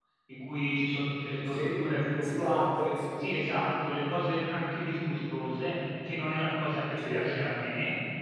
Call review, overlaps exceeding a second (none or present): none